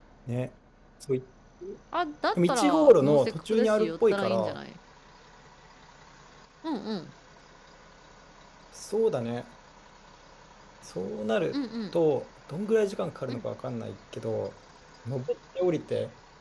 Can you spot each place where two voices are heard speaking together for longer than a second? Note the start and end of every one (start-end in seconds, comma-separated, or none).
2.4-4.6